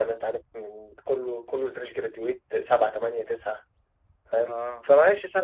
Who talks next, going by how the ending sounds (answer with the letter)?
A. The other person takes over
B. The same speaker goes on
B